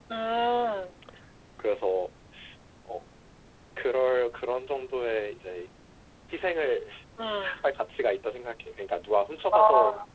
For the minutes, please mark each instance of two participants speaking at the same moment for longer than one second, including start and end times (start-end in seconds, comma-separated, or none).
none